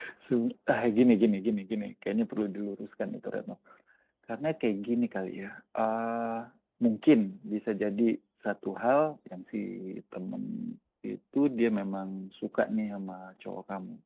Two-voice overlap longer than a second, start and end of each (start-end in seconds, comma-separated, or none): none